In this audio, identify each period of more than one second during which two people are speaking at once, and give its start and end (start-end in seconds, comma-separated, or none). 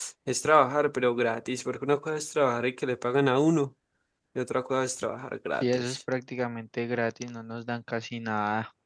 none